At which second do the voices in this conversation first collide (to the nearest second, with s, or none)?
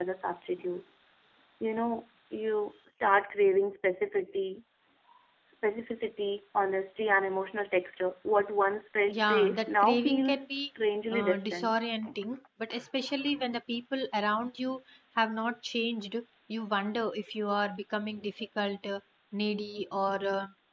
9 s